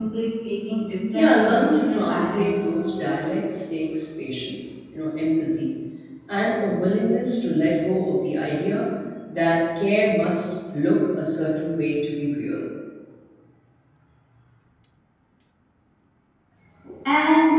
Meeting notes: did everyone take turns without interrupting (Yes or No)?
No